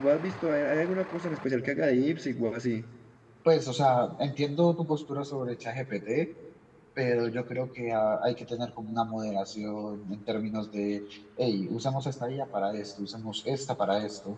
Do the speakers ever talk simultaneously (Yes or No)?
No